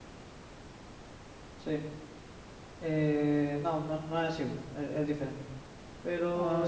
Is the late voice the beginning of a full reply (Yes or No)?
No